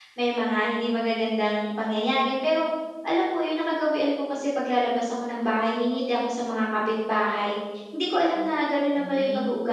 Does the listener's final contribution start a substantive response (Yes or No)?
No